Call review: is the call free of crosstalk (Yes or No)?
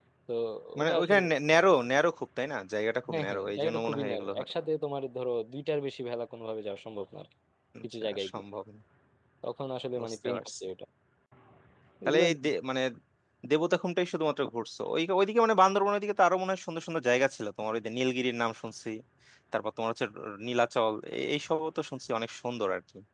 No